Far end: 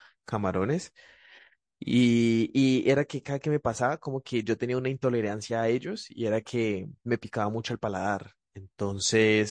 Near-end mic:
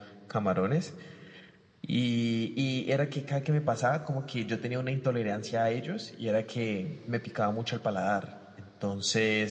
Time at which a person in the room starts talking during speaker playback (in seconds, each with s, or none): none